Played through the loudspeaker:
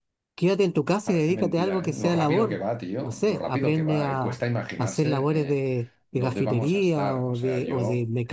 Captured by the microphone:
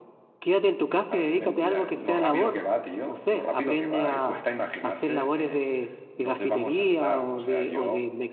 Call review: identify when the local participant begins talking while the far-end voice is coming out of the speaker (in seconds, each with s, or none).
none